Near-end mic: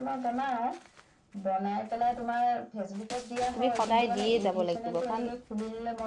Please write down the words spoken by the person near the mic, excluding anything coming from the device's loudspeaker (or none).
তুমি সদায় দিয়েই যাব লাগিব কাৰণ